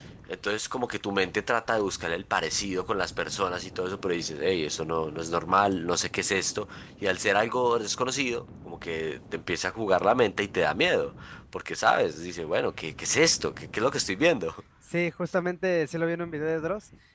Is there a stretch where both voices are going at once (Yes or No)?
No